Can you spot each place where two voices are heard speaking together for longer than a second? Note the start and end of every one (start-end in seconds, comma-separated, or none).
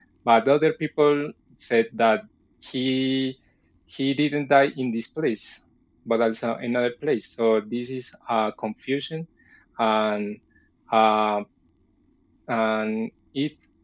none